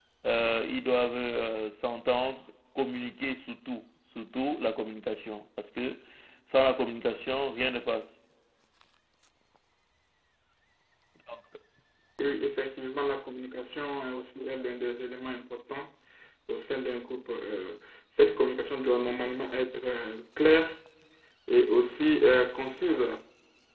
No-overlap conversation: Yes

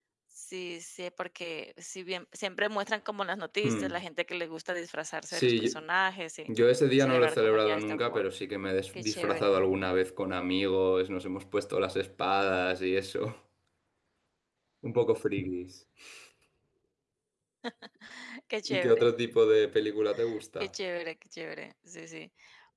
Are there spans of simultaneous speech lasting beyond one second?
Yes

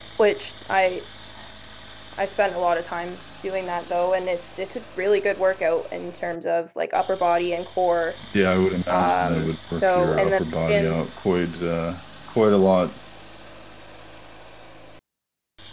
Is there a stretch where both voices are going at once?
Yes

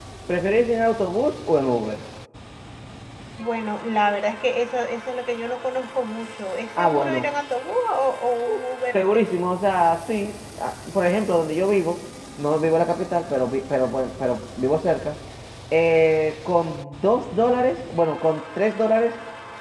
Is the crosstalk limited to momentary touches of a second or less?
Yes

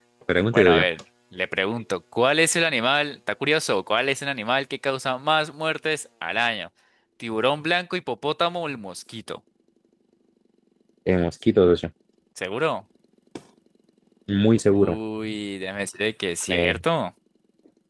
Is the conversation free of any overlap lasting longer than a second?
Yes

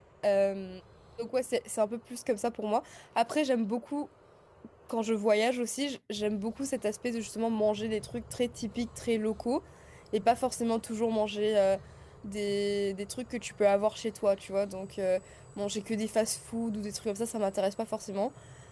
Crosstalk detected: No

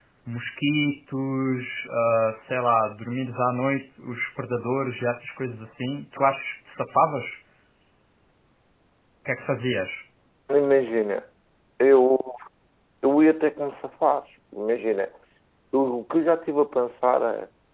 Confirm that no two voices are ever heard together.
Yes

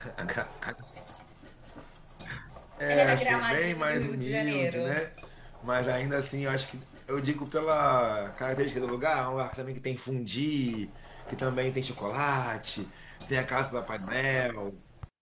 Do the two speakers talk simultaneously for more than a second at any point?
Yes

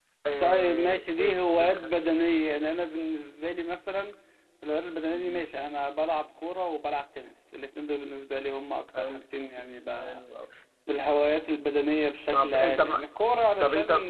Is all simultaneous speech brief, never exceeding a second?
No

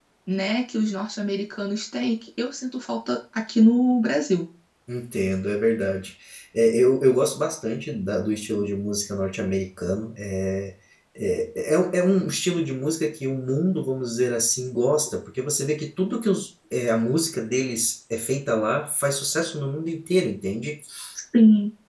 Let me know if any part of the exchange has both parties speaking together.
No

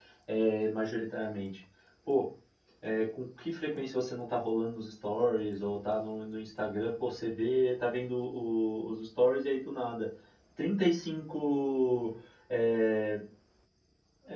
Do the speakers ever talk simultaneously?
No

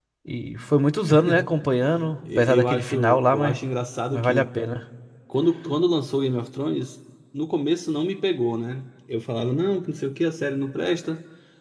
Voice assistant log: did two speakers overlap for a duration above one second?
Yes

